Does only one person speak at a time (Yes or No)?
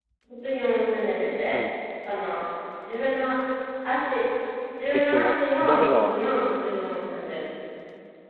No